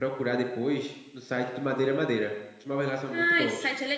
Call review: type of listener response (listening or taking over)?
taking over